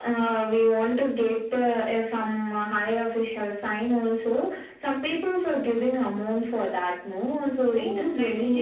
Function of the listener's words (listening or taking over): taking over